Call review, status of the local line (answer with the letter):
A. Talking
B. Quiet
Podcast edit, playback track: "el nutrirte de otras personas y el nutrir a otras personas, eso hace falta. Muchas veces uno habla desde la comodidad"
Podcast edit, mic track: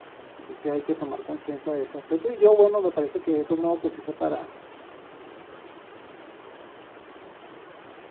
A